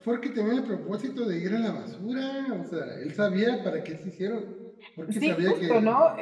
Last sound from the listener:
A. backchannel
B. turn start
B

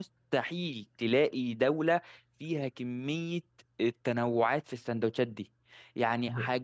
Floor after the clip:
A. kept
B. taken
A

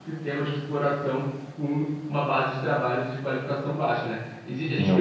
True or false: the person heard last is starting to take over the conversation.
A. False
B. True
A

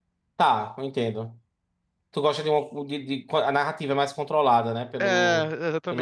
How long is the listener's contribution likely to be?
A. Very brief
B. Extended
B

